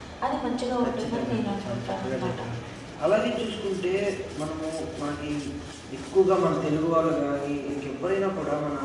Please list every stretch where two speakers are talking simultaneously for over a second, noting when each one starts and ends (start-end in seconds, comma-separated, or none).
0.8-2.3